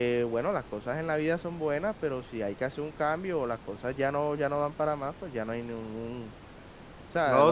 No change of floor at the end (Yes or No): No